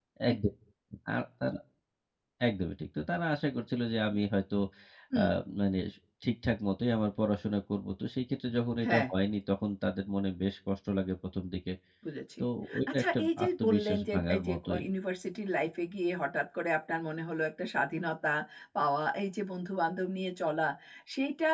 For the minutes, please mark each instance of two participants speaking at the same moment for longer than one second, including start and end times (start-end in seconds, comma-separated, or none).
12.9-14.8